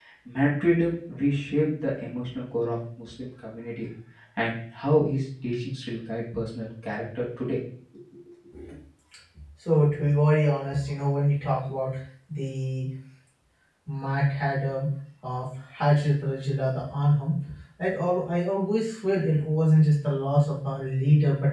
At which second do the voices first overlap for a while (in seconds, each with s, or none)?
none